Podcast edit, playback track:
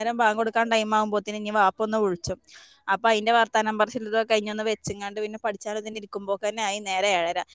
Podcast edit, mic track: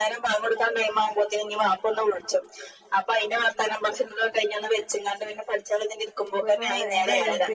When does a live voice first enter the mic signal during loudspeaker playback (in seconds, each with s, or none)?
6.3 s